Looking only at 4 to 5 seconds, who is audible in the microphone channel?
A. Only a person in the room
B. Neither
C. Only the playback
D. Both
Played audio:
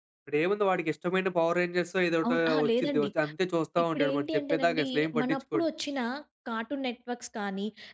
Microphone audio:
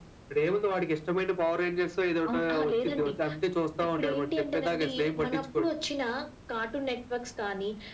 C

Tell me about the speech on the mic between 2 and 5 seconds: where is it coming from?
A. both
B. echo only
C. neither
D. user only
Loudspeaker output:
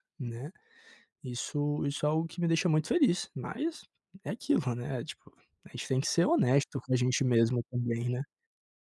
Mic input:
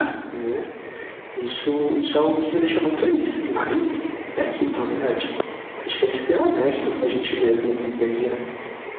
B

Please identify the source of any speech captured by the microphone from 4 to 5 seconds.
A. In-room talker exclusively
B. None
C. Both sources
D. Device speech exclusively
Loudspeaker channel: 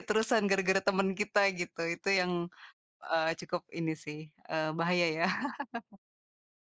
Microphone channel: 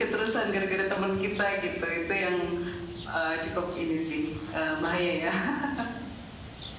D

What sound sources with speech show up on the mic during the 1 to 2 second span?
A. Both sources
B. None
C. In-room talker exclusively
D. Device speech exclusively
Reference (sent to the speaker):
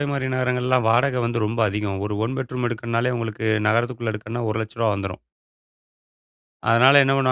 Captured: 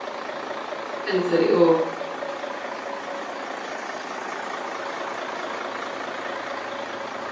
C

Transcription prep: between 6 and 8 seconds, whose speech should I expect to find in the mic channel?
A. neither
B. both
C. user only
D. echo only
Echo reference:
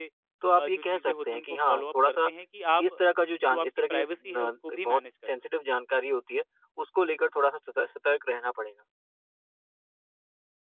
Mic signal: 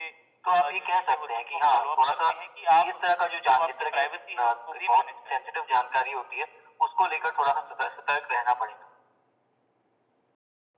D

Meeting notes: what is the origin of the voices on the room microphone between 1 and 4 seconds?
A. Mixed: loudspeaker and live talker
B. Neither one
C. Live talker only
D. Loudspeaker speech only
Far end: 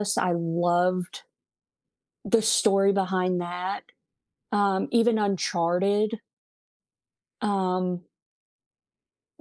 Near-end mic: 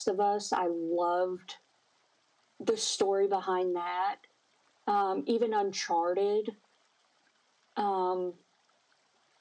D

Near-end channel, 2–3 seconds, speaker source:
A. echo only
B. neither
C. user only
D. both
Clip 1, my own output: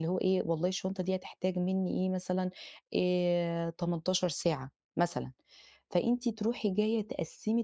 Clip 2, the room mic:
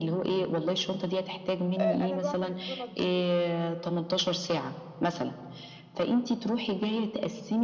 D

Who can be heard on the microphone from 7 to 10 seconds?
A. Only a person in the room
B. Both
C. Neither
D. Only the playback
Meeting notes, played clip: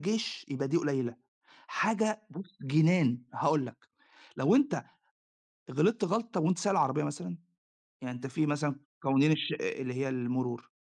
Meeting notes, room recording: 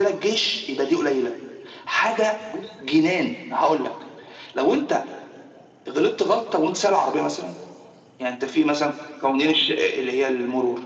D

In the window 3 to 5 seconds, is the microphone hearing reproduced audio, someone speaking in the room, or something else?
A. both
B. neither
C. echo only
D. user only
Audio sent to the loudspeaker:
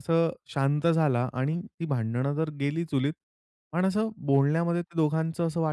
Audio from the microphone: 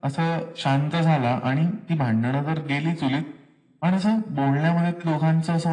C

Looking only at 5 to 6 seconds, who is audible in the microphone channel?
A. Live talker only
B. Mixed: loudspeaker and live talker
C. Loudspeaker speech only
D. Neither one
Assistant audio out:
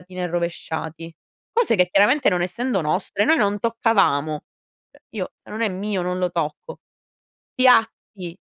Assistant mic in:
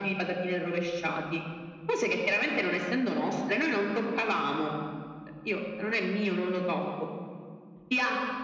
C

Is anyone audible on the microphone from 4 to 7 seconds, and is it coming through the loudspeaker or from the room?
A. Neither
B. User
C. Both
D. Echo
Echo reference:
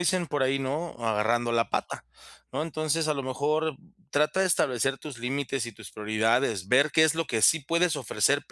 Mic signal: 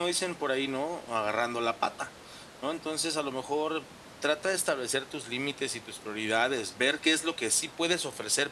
D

